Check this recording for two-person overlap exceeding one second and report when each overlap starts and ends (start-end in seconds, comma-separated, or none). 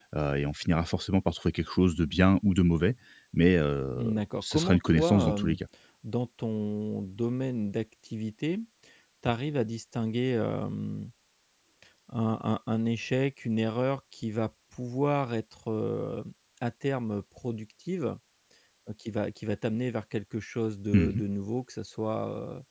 4.0-5.6